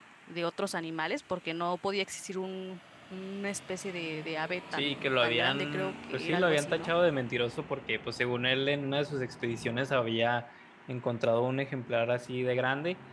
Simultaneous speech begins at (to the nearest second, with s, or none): 5 s